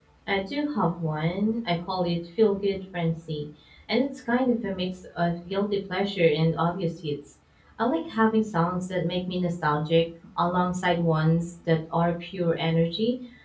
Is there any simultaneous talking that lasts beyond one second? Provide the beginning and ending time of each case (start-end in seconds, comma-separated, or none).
none